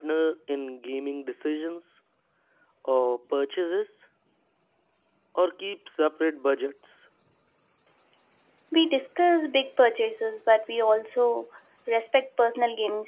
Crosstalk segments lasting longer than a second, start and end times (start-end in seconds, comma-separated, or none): none